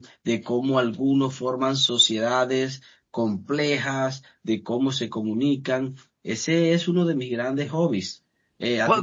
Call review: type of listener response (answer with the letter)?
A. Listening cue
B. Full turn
B